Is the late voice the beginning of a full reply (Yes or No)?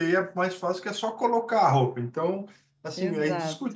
No